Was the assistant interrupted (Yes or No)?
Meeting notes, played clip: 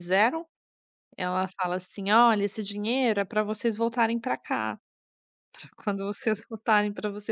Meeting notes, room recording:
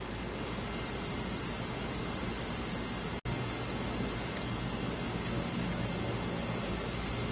No